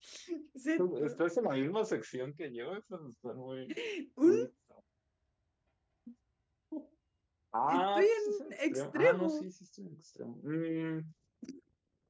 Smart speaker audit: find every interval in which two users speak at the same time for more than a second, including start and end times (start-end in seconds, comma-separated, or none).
7.7-9.5